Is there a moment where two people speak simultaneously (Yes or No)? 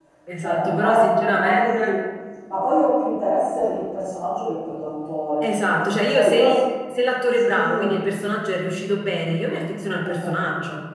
Yes